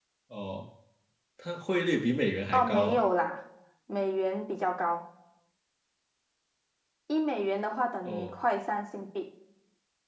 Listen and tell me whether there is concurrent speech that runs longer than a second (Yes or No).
No